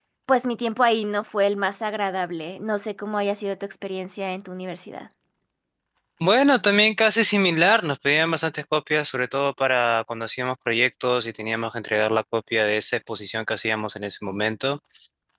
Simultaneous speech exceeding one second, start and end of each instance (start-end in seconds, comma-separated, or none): none